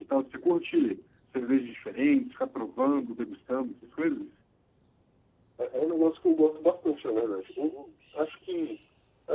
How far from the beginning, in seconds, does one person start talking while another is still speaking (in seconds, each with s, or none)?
none